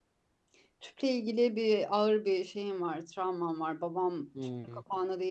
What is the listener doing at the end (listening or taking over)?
listening